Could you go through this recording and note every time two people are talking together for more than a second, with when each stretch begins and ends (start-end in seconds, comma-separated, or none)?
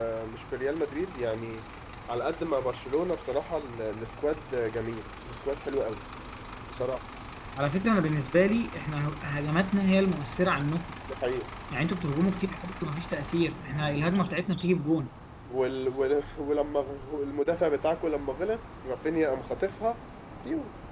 none